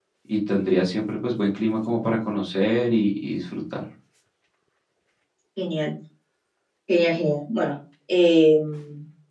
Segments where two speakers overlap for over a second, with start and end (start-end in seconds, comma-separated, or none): none